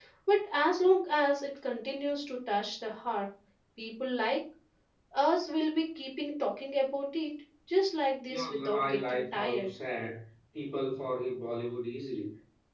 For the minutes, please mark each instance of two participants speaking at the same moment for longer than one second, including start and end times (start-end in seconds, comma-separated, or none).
8.3-9.7